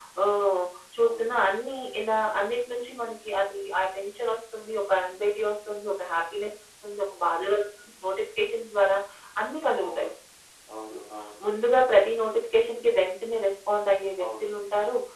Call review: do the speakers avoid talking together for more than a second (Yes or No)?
Yes